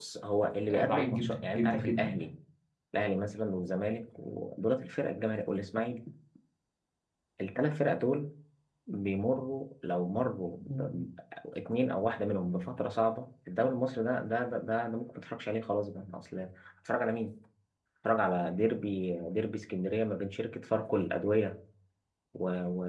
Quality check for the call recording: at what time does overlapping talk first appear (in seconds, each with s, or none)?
0.7 s